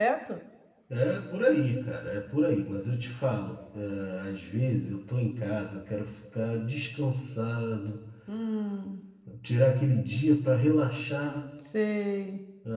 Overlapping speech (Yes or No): No